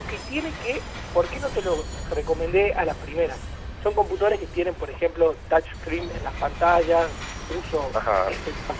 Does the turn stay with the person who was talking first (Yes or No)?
Yes